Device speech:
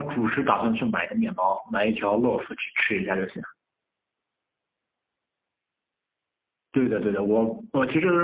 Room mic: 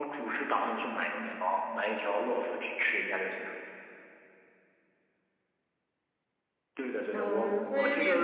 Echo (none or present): present